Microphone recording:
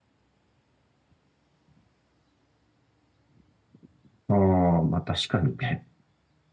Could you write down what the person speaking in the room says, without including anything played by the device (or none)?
ああ、まあ確かにね。